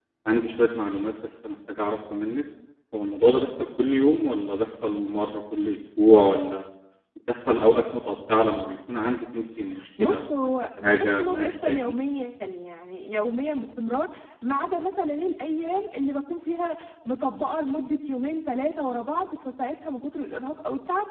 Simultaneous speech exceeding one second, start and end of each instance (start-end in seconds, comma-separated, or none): 10.0-11.8